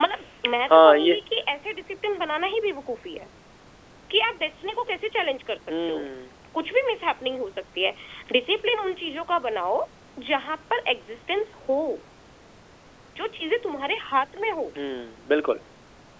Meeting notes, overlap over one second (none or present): none